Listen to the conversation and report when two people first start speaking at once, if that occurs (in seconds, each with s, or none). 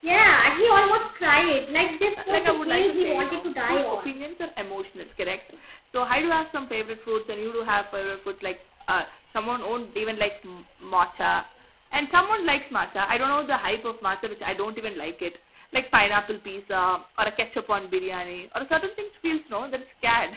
2.2 s